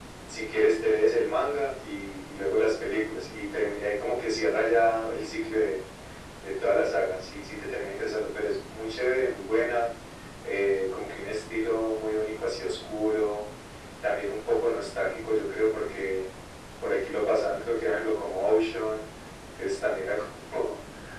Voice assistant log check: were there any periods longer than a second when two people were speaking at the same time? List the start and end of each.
none

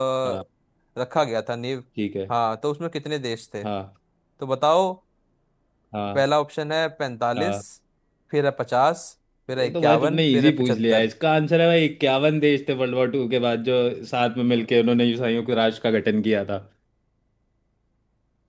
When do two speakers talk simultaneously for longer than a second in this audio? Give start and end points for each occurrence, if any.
9.6-11.1

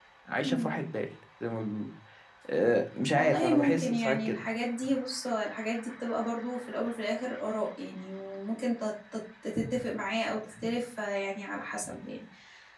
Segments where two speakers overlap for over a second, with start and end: 3.1-4.4

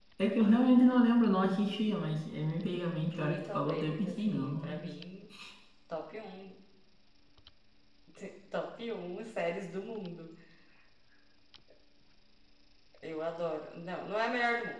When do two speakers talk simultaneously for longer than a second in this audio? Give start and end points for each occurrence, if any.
3.0-4.9

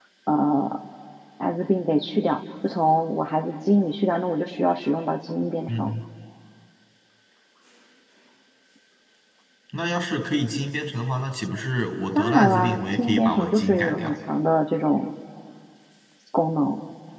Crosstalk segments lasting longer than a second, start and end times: 12.1-14.1

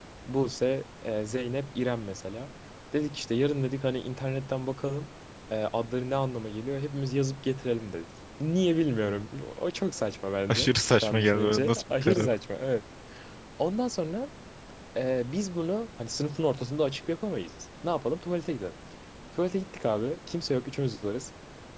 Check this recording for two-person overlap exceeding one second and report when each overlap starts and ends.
10.5-12.3

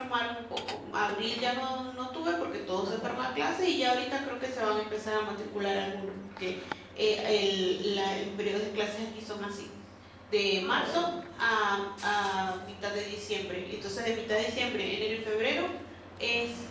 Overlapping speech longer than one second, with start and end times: none

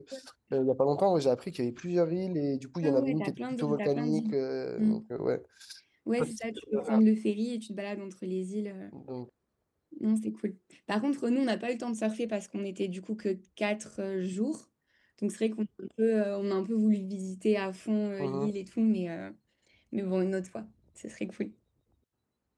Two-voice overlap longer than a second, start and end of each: 2.8-4.3

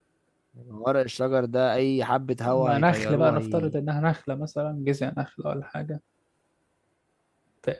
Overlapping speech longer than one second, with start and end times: 2.5-3.8

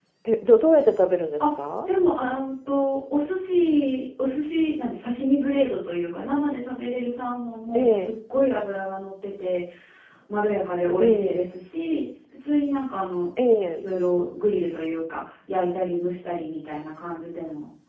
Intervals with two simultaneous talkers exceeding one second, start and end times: none

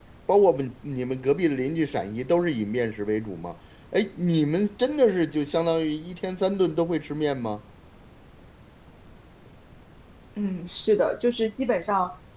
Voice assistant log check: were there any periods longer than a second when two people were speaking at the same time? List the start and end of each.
none

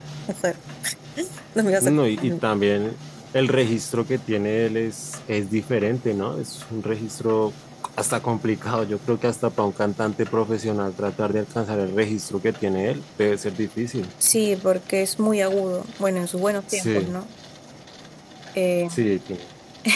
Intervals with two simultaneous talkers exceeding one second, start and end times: none

